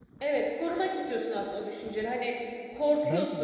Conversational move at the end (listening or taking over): listening